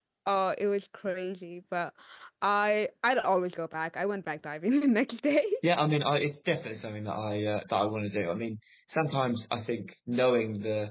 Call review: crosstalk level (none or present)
none